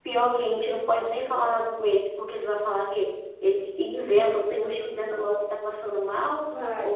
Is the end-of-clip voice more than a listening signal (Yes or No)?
No